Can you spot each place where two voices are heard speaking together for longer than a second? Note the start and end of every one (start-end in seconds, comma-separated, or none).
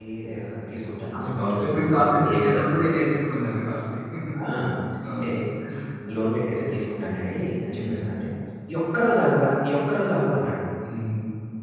1.1-2.8